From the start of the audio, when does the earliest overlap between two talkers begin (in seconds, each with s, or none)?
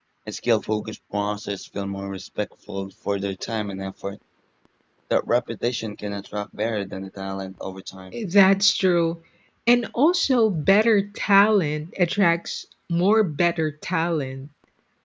none